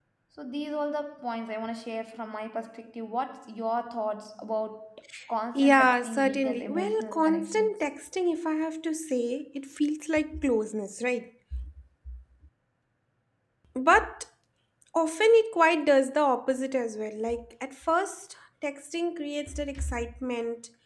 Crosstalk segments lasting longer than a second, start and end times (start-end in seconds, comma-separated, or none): 5.5-7.7